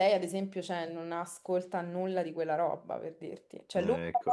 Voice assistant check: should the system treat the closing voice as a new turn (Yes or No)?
No